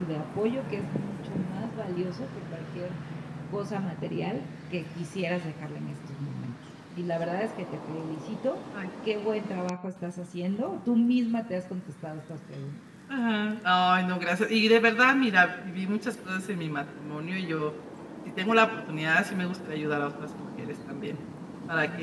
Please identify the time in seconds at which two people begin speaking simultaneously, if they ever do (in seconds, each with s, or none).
none